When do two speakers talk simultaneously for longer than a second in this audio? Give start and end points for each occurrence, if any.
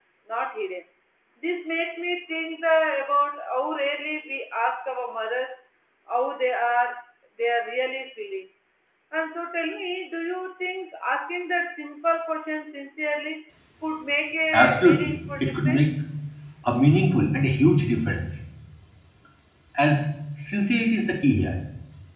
14.5-15.9

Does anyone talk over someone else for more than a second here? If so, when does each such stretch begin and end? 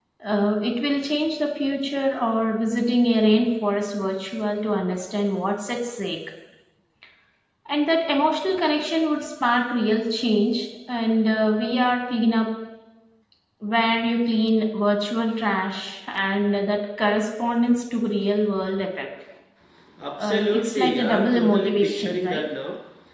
20.2-22.4

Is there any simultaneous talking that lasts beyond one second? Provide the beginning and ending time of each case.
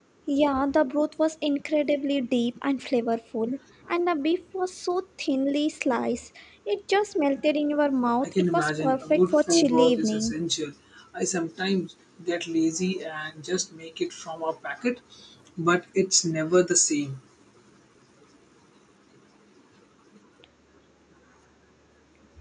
8.2-10.3

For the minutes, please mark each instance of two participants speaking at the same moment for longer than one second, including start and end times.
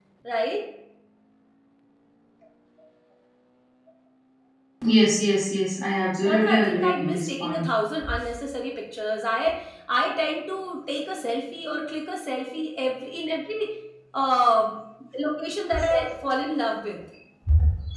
6.2-7.7

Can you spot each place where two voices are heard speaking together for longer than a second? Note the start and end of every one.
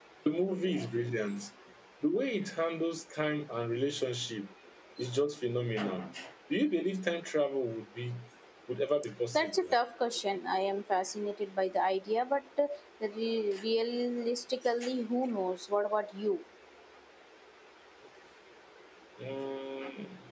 none

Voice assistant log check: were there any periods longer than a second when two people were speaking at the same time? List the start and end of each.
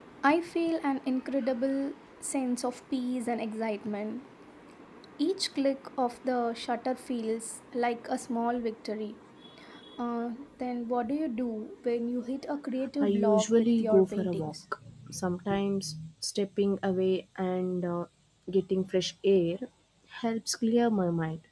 13.0-14.5

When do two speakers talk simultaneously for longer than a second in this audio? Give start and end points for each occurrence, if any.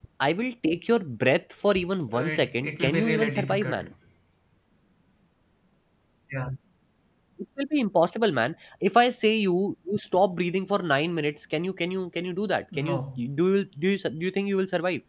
2.1-3.8

